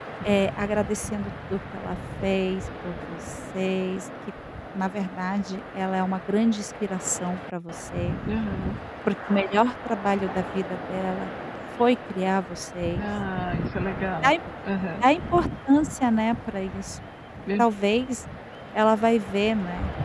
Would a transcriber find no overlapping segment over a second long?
Yes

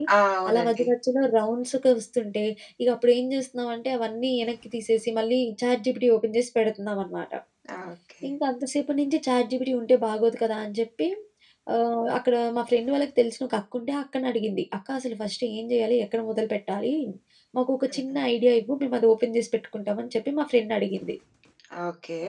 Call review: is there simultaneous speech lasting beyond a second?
No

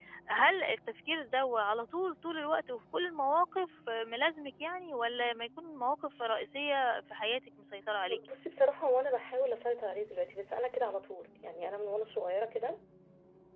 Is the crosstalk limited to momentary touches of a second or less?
Yes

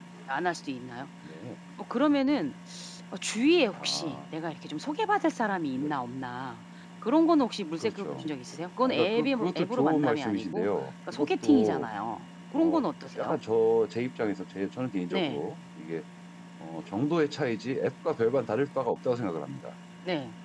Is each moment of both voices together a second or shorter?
No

